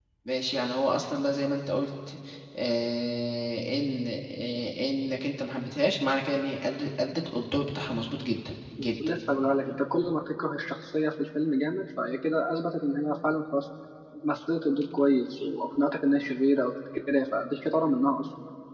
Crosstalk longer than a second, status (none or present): none